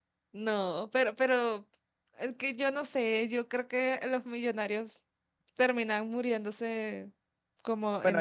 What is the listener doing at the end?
taking over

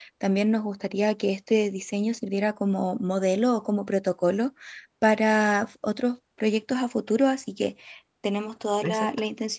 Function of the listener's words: listening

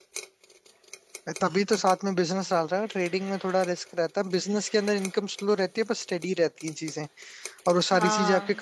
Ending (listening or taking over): listening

